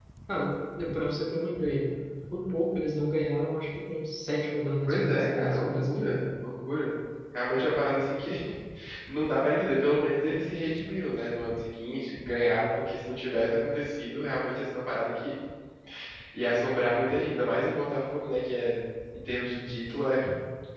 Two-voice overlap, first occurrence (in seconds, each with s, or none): 4.9 s